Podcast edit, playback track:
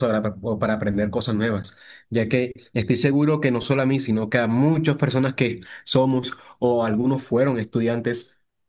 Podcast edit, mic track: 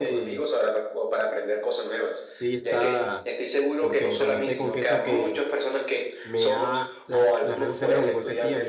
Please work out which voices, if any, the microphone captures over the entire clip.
both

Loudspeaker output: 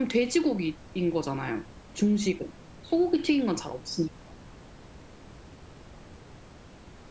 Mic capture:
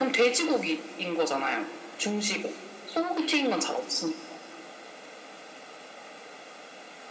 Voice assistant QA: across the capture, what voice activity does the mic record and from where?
echo only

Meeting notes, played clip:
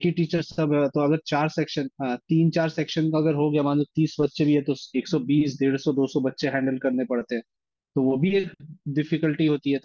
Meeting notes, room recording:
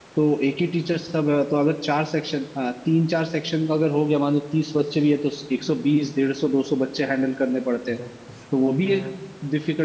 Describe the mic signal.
both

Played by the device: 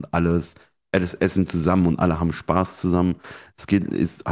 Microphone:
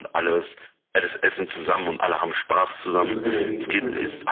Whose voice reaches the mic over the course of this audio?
both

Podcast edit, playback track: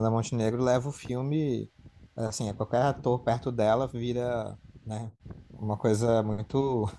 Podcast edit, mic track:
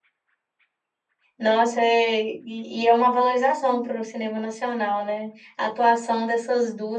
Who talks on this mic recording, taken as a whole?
user only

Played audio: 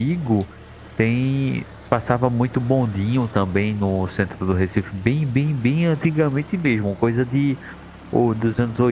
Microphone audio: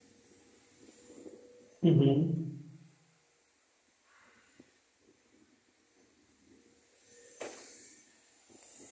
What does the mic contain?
user only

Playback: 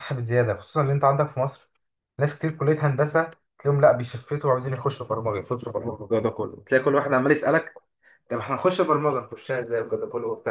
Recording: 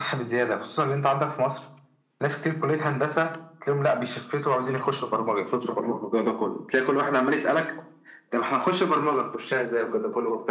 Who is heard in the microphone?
echo only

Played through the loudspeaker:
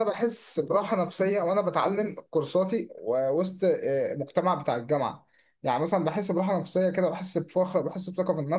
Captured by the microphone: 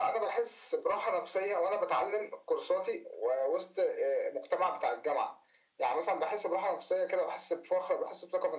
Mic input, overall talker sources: echo only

